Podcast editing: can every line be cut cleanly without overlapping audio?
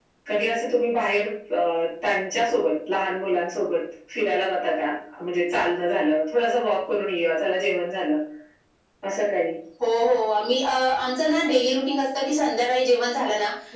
Yes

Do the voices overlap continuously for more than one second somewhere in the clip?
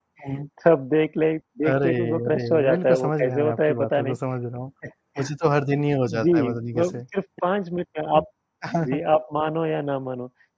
Yes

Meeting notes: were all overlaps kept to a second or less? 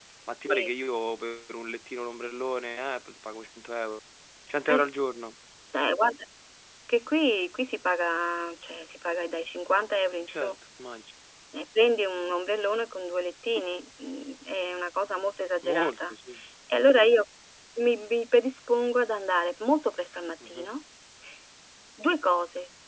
Yes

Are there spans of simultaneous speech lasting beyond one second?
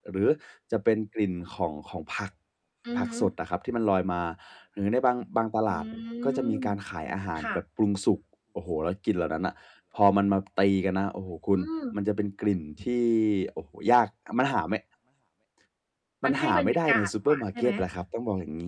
Yes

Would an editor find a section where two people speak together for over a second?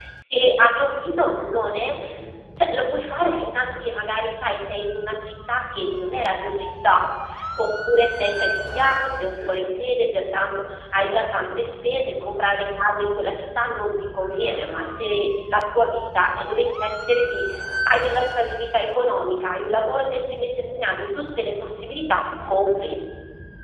No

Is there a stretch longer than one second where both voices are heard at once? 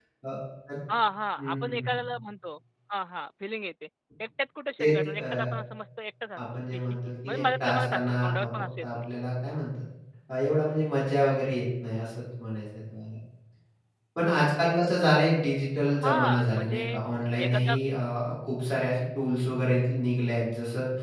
Yes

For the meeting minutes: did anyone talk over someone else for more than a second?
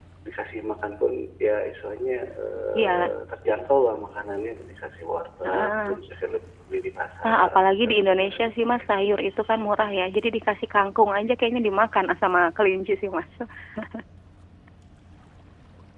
Yes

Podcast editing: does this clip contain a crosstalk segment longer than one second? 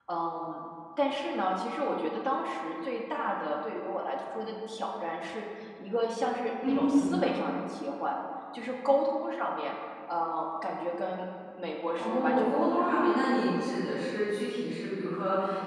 Yes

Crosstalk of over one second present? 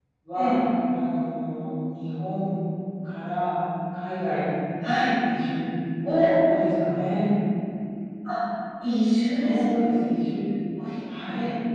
No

